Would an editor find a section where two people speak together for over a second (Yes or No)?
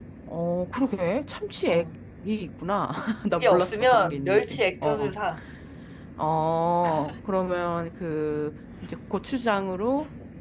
Yes